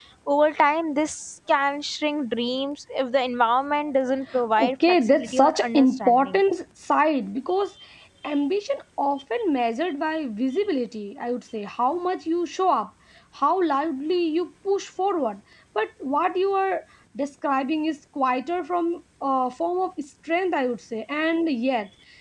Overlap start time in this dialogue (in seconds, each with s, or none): 4.6 s